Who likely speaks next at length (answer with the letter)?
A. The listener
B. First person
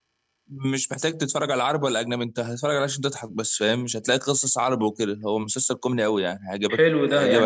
A